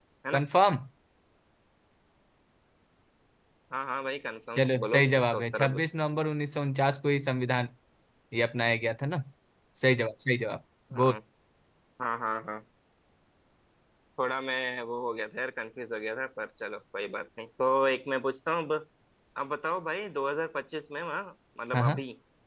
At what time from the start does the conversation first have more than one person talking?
4.6 s

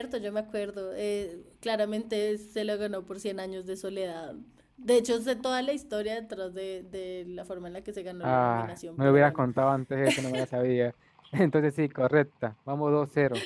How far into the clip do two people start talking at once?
8.2 s

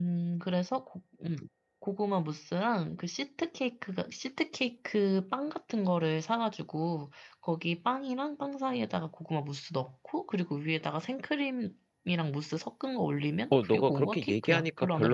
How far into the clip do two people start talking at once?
13.5 s

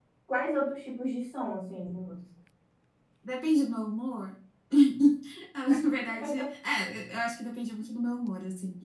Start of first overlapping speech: none

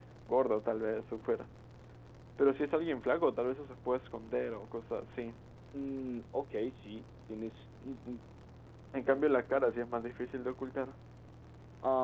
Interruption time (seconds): none

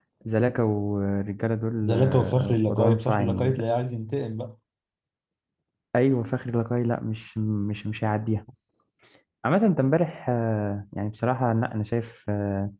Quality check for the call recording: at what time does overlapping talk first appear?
1.8 s

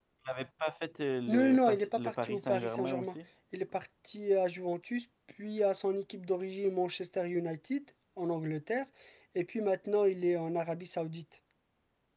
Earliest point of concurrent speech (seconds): 1.3 s

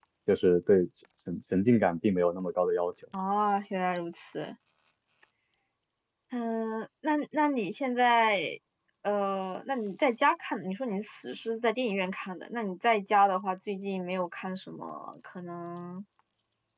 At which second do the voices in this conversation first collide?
none

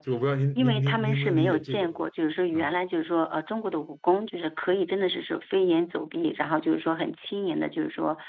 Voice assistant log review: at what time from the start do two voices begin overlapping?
0.6 s

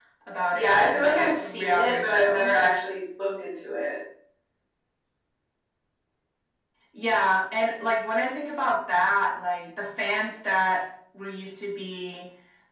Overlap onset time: 0.5 s

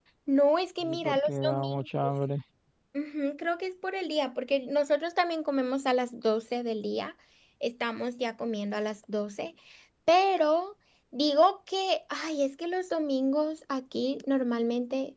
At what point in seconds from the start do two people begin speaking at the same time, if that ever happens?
0.9 s

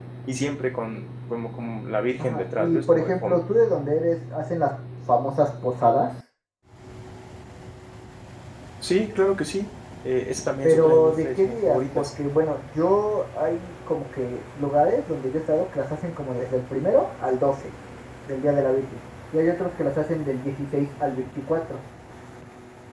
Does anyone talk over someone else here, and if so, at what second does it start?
2.2 s

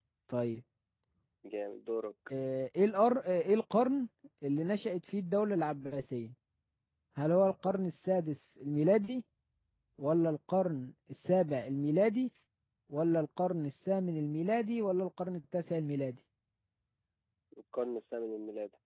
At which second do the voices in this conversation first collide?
none

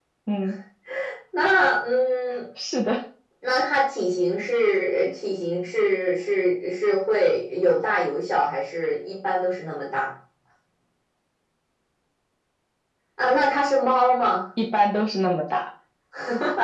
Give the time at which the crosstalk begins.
none

